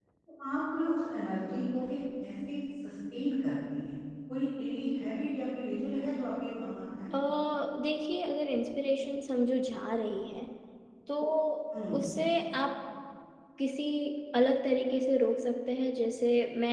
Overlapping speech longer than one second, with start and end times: none

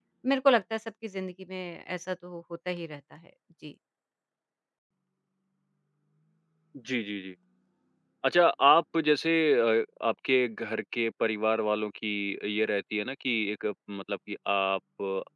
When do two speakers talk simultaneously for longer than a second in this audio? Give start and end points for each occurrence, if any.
none

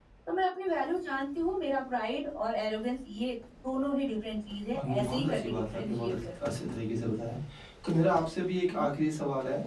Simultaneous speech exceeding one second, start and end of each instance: 4.8-6.8

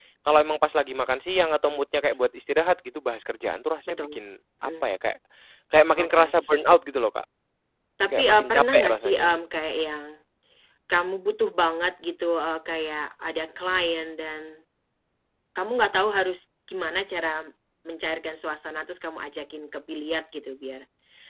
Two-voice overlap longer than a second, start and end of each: 8.1-9.3

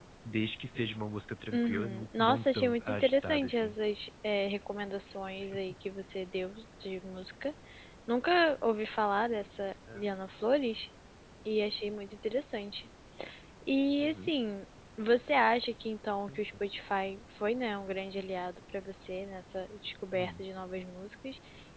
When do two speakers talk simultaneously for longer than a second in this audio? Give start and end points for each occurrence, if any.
1.5-3.8

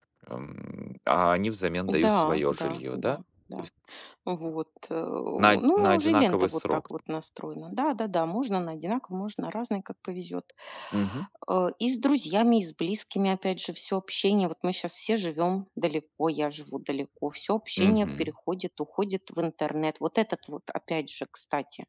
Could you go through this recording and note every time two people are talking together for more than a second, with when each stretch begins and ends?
1.9-3.2, 5.4-6.8

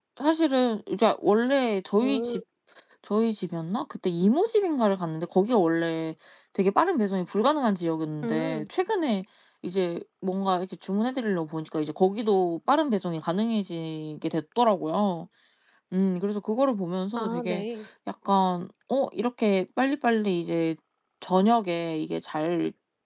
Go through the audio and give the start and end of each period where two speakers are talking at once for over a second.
none

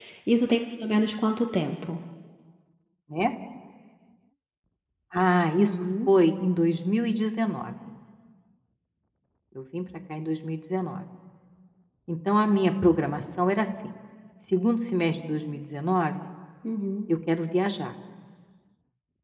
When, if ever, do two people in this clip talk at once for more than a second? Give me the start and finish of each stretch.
none

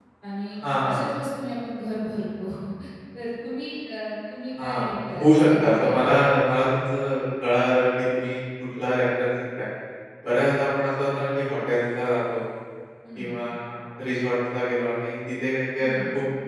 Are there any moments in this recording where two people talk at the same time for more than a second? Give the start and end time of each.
4.6-6.2

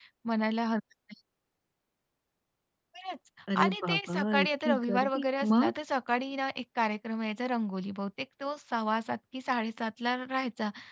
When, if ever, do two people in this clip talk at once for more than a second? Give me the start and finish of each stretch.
3.6-5.8

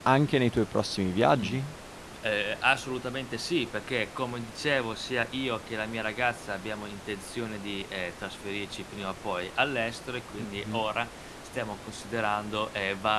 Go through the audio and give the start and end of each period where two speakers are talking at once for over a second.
none

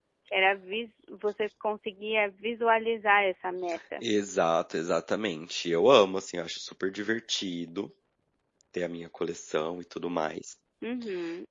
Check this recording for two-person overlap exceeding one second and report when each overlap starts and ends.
none

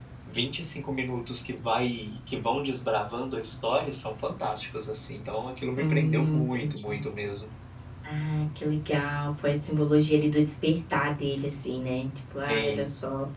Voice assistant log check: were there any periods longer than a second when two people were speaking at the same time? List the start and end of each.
5.8-7.0

